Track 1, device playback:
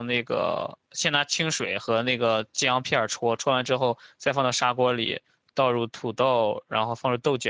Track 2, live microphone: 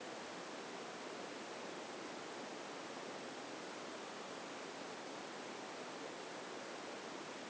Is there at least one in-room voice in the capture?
No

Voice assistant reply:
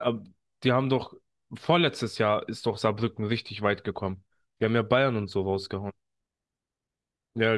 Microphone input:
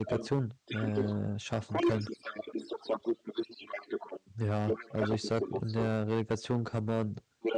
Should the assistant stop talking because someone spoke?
Yes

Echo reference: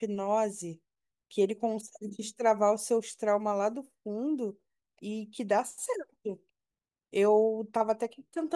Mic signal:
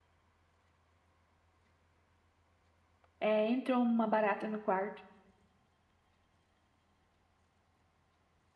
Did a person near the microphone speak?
Yes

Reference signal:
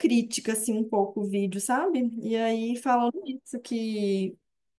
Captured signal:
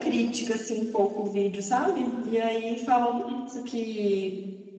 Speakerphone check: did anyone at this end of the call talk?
No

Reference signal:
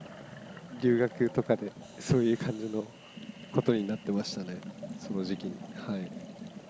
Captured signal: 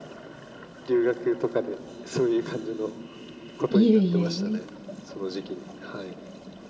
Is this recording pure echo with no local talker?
No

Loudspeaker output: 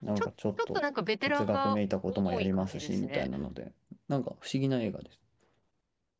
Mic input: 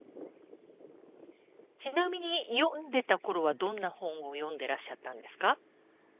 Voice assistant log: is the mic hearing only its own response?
No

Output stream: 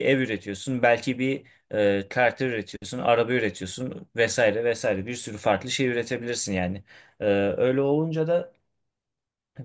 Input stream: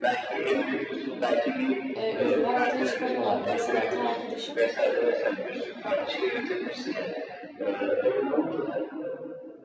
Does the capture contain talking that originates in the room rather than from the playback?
Yes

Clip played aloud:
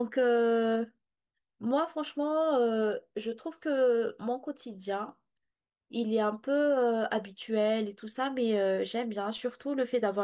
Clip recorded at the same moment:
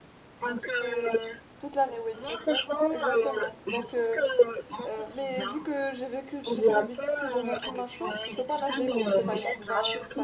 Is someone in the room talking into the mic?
Yes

